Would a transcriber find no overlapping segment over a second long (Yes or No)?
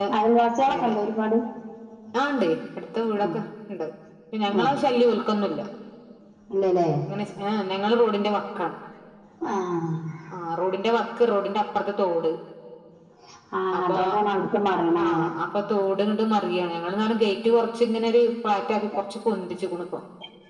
Yes